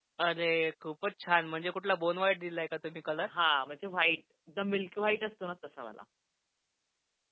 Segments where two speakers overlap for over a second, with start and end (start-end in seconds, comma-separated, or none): none